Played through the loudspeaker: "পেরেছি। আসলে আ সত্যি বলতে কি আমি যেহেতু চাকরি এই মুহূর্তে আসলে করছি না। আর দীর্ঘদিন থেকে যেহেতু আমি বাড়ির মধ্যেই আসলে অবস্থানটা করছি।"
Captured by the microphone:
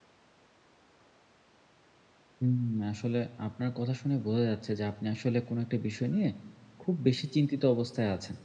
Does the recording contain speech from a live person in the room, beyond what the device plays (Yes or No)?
Yes